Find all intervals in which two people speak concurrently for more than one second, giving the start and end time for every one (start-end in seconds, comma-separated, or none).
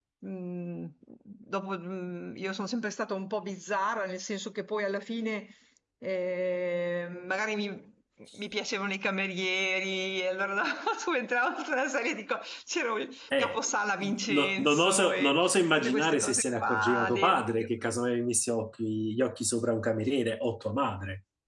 14.3-17.7